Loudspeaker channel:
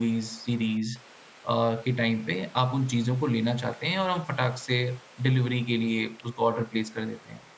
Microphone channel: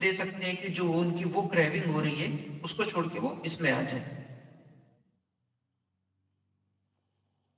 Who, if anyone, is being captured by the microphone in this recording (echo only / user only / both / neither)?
user only